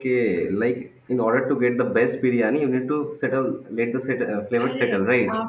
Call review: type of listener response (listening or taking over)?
taking over